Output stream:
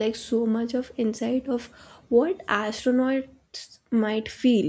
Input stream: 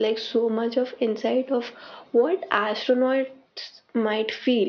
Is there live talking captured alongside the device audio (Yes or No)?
No